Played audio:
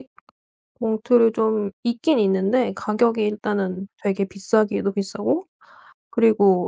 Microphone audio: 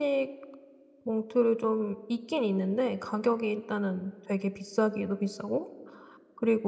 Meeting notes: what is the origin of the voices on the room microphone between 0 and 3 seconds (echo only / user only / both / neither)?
echo only